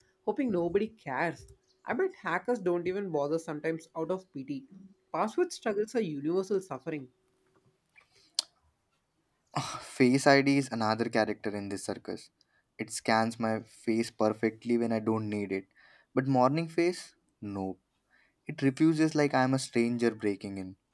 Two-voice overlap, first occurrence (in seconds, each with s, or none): none